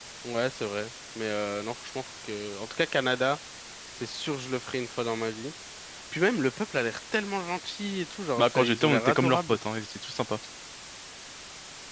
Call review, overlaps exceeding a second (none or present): present